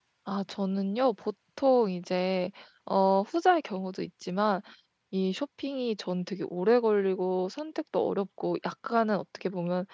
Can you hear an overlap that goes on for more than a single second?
No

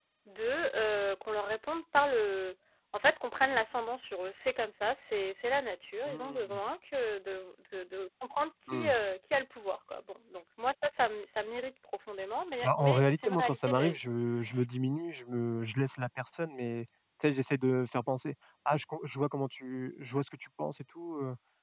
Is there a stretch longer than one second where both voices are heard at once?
Yes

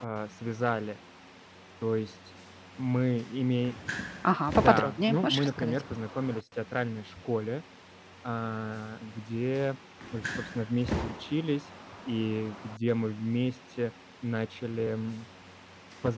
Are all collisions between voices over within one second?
No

